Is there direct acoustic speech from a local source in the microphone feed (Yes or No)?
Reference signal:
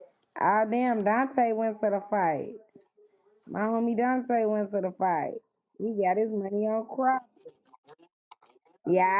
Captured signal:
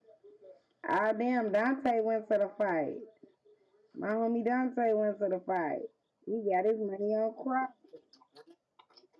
No